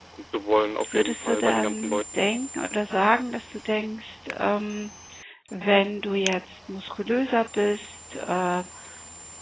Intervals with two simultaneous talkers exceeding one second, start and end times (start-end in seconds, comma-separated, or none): 0.9-2.2